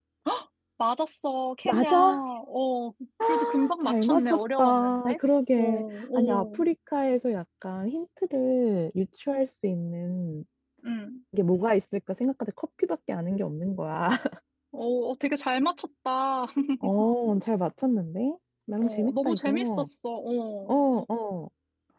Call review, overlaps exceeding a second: present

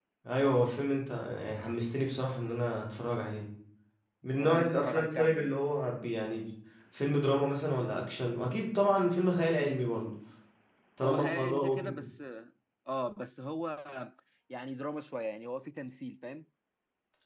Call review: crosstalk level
present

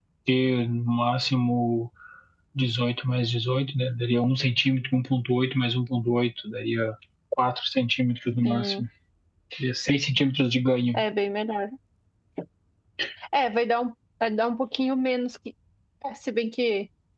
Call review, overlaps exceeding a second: none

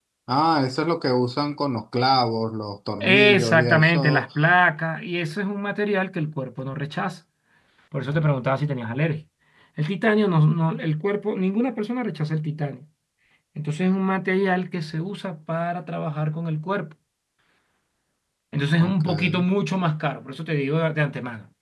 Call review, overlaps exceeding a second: present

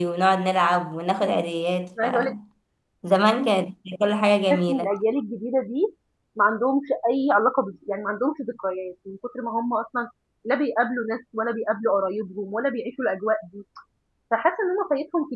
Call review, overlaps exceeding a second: none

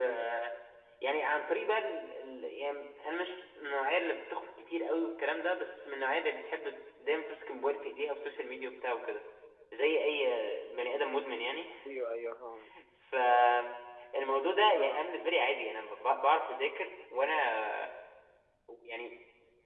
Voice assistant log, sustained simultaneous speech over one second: none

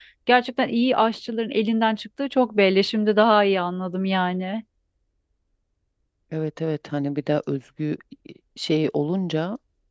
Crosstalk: none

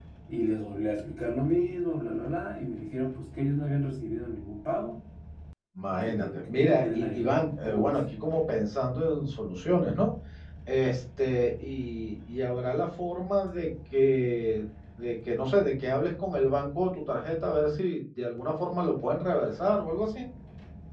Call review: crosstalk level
present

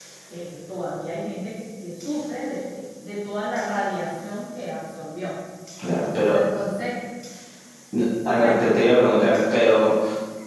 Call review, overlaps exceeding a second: none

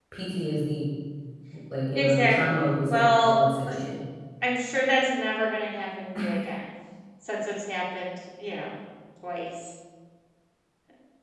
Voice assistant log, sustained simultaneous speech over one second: present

